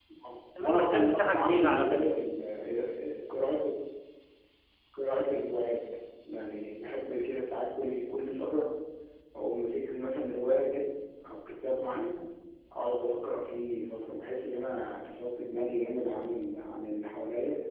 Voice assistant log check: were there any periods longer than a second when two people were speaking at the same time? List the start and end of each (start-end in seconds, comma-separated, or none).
0.6-2.2